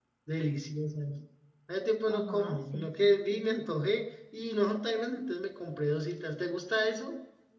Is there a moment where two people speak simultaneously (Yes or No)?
Yes